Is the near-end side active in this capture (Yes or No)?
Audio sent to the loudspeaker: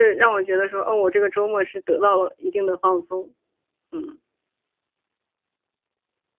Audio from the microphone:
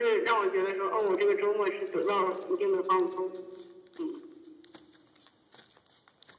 No